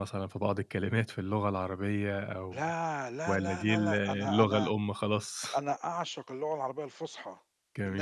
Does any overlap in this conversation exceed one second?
Yes, from 3.3 s

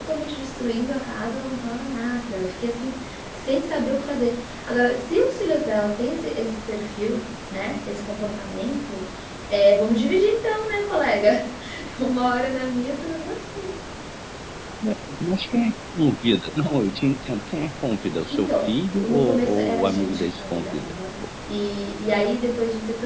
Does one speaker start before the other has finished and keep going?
Yes, from 18.3 s

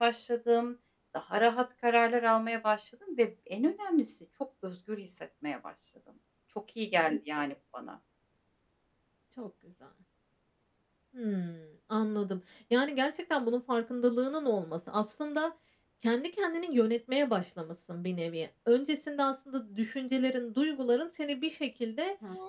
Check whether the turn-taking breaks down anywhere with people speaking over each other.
No

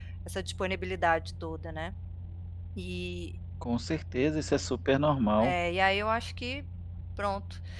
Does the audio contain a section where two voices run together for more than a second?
No

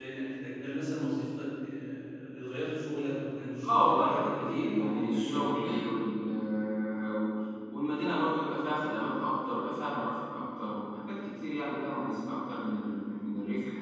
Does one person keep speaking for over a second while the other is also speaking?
Yes, from 3.6 s

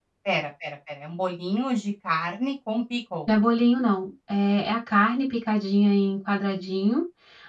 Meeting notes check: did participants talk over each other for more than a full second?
No

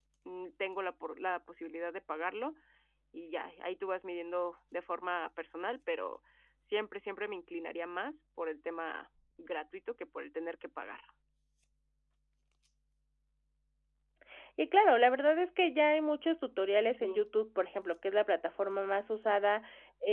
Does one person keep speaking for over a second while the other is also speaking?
No

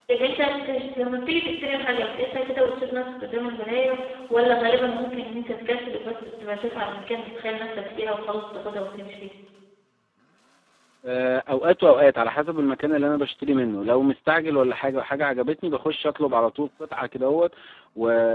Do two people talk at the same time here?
No

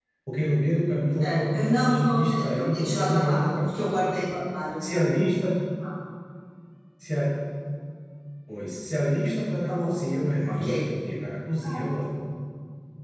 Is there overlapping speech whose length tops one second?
Yes, from 1.3 s

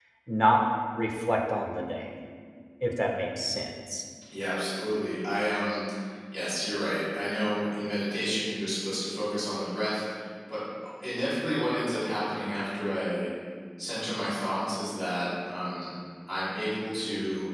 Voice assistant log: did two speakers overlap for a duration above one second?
No

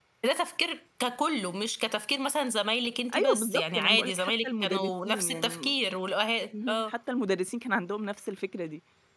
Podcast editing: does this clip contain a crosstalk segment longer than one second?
Yes, from 3.1 s

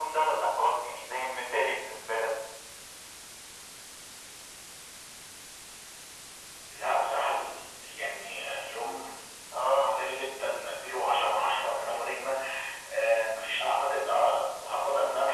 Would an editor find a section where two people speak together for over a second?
No

